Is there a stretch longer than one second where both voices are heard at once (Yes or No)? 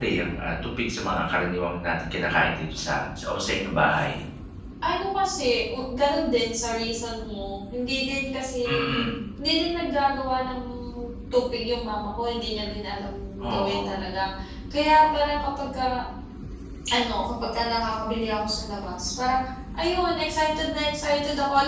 No